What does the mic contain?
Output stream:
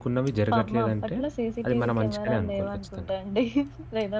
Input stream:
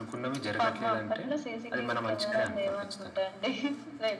echo only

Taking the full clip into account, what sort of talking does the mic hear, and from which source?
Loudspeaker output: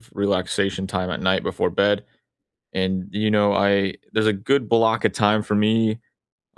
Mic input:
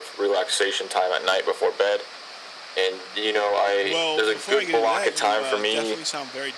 both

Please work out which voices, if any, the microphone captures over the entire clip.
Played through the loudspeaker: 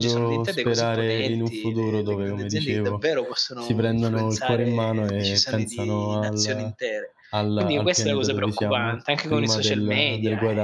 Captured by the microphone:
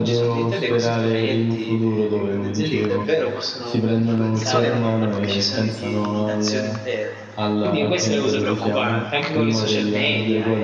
both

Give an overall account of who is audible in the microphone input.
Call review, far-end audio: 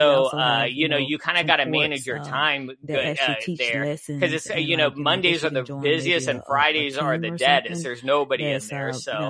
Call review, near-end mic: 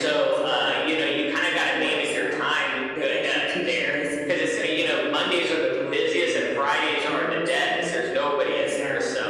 echo only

